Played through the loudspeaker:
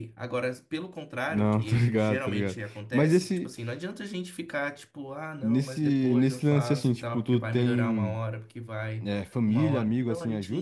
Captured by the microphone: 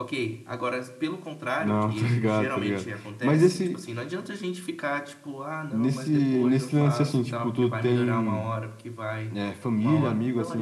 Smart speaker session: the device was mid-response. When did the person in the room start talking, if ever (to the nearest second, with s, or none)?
none